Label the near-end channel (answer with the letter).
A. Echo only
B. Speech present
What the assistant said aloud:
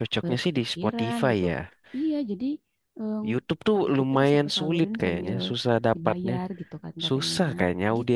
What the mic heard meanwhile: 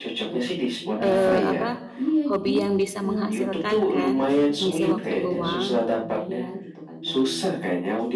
B